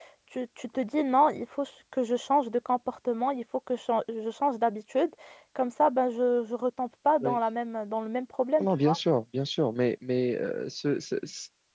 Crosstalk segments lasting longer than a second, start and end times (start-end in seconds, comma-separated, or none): none